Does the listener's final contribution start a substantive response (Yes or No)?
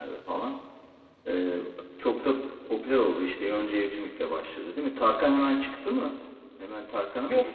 Yes